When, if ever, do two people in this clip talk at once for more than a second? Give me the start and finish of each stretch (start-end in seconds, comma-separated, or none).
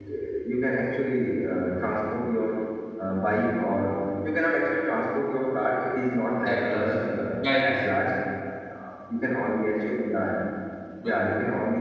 6.5-7.8